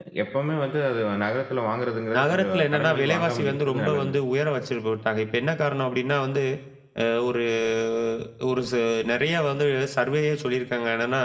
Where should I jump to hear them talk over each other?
2.1 s

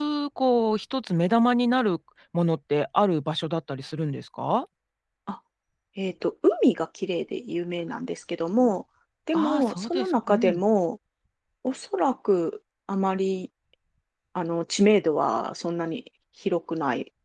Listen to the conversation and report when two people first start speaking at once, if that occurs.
9.3 s

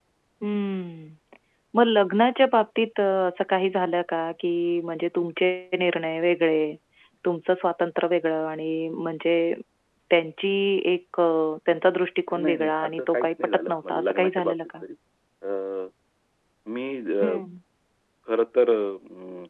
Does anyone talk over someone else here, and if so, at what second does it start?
12.3 s

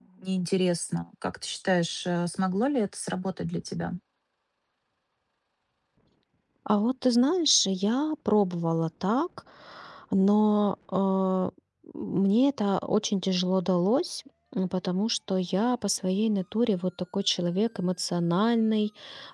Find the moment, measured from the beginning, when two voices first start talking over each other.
none

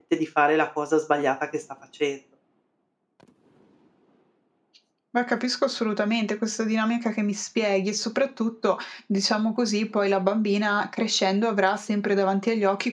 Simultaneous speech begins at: none

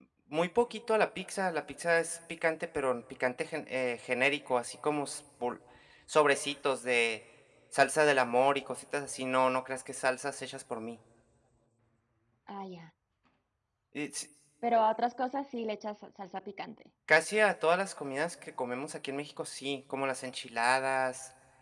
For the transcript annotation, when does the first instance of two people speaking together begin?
none

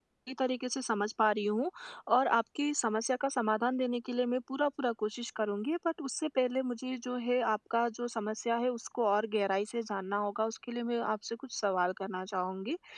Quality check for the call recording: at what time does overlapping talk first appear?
none

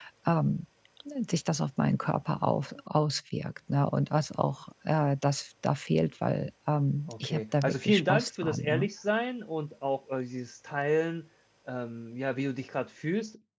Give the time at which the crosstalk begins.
7.1 s

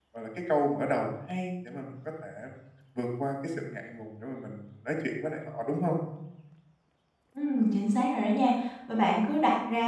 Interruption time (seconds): none

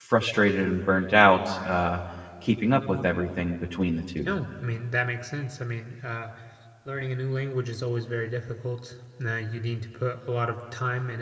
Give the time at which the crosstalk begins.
none

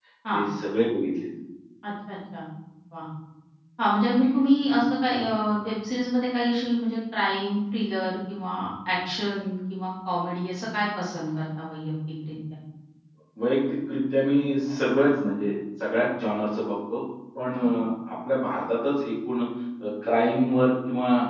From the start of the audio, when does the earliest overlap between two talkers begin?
none

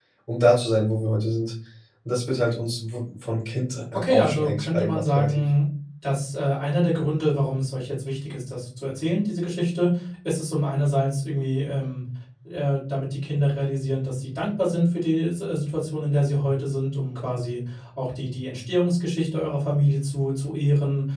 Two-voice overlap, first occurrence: 3.9 s

